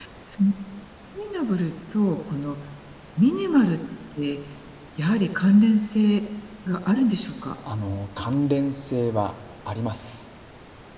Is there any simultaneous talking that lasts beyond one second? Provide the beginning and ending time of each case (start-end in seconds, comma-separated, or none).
none